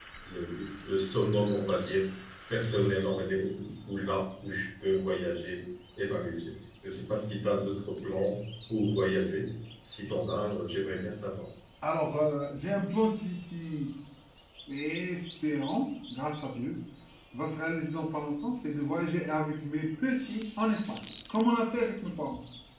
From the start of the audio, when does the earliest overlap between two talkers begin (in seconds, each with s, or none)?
none